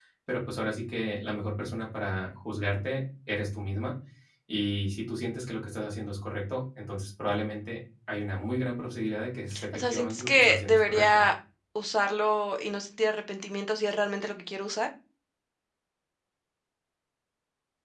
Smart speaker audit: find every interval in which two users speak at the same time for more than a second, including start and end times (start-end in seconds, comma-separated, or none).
9.7-11.2